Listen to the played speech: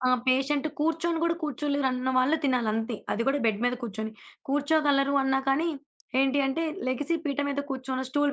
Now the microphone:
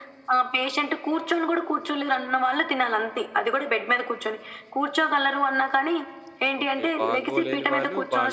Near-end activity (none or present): present